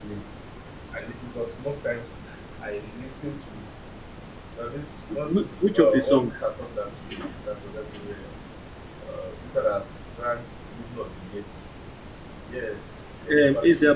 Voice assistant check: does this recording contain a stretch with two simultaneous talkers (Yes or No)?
Yes